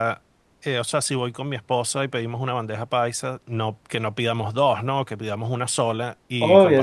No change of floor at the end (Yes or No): Yes